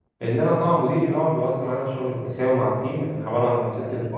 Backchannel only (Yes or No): Yes